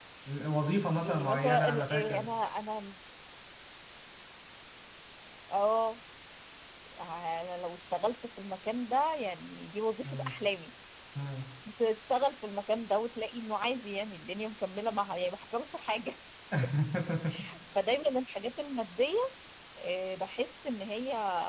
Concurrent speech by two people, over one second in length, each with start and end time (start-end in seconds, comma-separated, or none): 1.0-2.3